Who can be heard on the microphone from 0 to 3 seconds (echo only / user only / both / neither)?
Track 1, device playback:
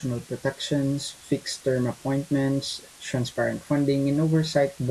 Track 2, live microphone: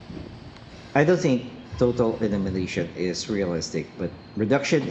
user only